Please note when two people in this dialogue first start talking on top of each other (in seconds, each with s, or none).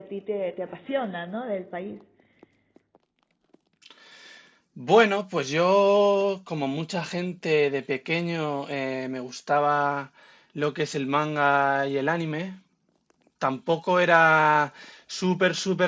none